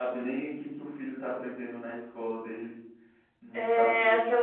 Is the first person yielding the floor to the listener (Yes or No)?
Yes